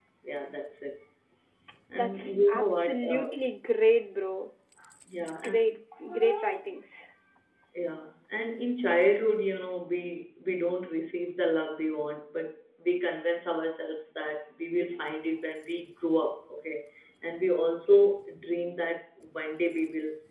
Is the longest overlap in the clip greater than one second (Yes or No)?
Yes